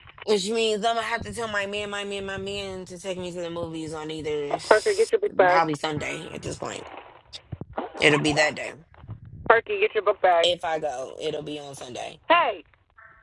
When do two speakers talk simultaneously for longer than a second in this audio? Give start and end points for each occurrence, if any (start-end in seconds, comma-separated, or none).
none